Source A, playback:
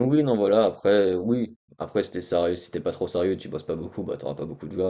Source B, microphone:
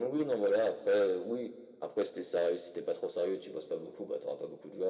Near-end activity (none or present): none